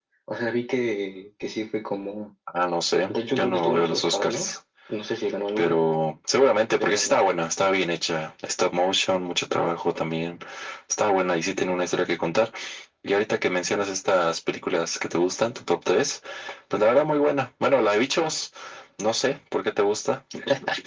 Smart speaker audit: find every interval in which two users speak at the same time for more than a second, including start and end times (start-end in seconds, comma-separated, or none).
3.1-4.5